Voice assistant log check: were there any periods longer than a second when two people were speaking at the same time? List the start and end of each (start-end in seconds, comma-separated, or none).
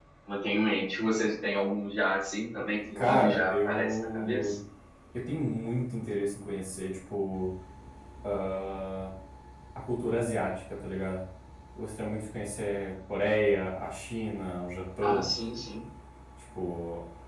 3.0-4.5